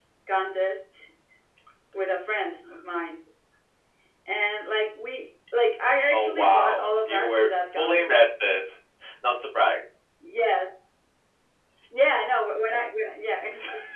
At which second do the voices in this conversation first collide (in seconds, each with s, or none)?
6.1 s